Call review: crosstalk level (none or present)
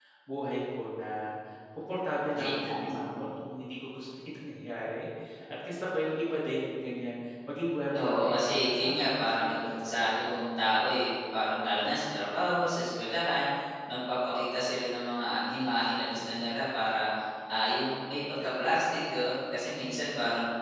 present